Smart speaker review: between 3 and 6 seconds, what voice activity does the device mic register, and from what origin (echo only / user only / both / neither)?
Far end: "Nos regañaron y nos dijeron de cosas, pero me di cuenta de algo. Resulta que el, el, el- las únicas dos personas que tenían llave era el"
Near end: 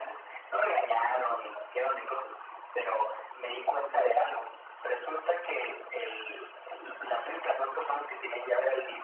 echo only